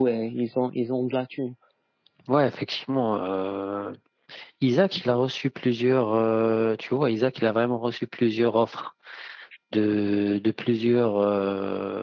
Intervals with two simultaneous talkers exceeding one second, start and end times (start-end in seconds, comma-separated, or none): none